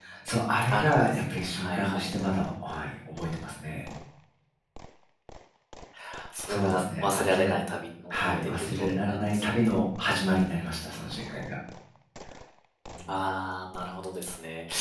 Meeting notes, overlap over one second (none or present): present